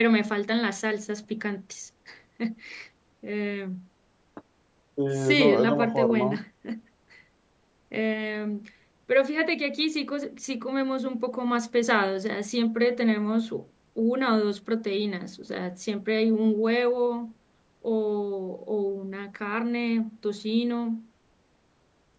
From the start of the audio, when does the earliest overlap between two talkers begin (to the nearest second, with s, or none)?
5 s